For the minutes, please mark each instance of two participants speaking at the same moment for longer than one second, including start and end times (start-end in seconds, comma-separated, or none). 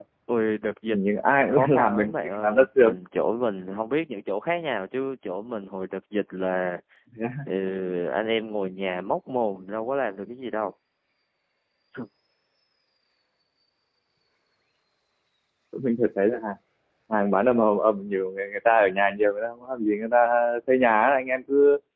1.5-3.0